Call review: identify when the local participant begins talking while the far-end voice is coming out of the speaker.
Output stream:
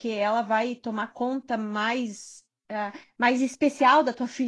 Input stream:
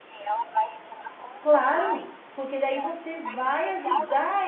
1.4 s

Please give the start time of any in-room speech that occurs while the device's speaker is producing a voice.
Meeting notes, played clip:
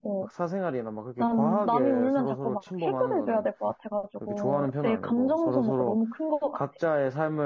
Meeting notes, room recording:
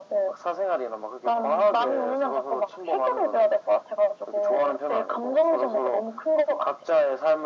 none

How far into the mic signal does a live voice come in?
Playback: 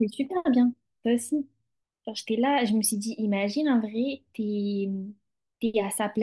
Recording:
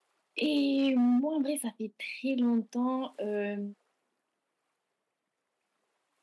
0.4 s

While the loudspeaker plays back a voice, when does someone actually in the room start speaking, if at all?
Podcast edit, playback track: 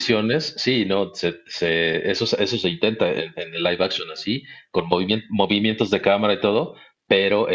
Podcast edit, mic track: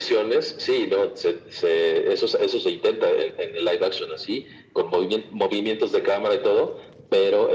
none

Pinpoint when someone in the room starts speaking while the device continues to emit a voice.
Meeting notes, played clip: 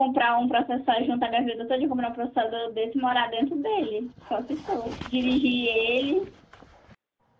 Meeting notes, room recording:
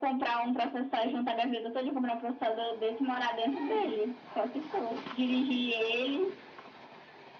3.5 s

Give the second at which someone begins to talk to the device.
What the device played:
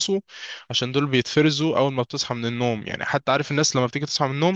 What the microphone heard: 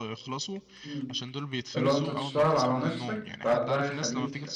0.8 s

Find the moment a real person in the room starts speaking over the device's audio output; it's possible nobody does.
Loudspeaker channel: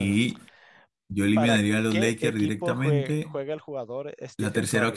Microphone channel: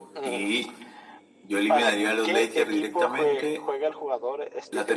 none

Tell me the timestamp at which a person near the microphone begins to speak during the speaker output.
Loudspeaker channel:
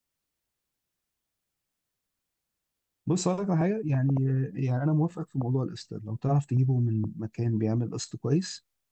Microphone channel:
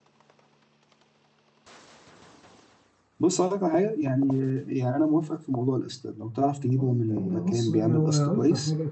6.8 s

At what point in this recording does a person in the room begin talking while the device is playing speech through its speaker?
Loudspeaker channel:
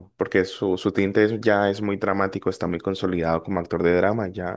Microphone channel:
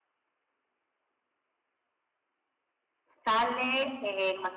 3.0 s

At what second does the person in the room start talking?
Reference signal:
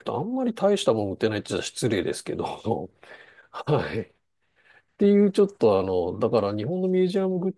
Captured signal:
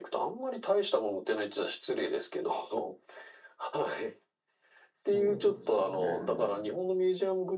5.1 s

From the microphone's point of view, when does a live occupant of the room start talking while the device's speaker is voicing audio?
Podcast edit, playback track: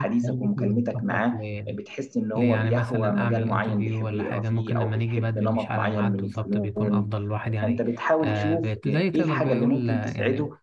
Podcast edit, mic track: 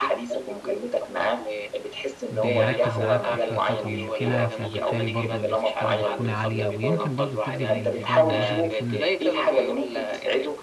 2.3 s

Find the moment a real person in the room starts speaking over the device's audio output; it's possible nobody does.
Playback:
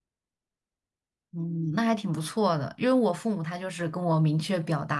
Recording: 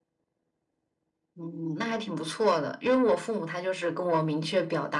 none

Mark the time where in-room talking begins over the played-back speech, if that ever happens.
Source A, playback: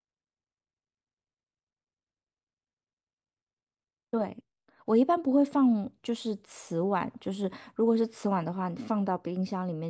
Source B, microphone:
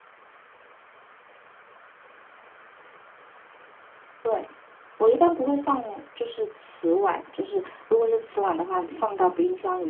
none

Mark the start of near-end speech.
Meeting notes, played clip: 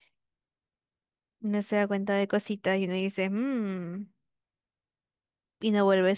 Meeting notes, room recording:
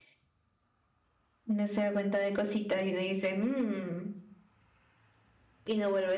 none

